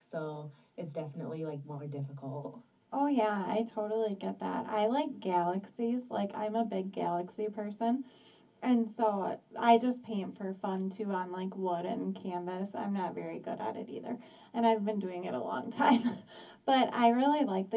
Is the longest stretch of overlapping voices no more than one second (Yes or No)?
Yes